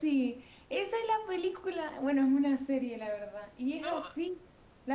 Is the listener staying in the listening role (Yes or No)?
Yes